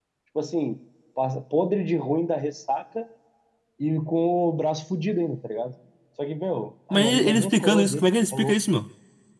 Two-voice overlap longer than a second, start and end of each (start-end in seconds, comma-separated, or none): 6.9-8.6